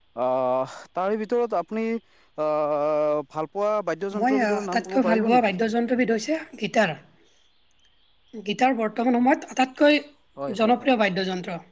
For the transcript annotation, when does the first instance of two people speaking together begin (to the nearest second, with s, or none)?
4 s